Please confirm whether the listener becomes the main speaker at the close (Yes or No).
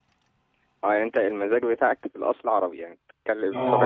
Yes